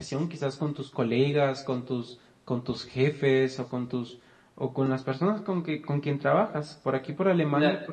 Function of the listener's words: taking over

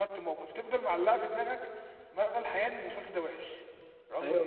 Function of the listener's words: taking over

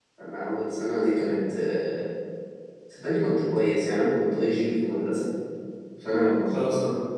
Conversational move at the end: listening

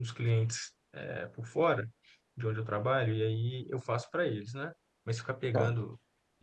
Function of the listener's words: listening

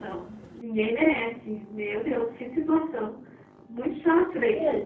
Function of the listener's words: listening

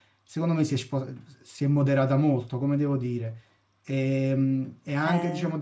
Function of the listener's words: listening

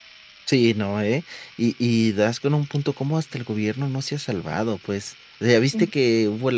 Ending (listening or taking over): listening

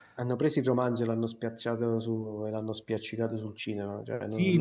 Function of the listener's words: taking over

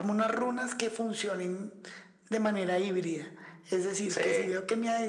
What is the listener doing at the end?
listening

